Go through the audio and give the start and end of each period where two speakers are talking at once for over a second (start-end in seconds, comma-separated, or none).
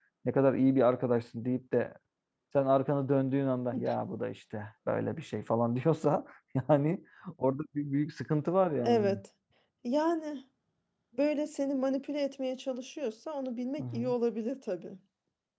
none